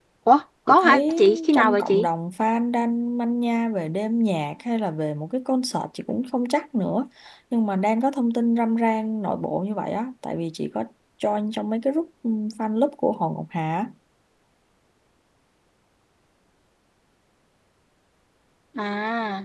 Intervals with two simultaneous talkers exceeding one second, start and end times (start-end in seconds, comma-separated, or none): 0.7-2.1